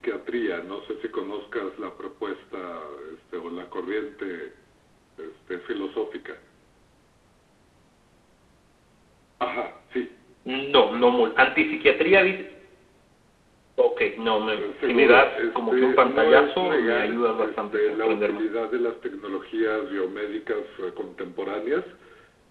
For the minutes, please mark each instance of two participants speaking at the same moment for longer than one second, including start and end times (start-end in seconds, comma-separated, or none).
14.6-18.5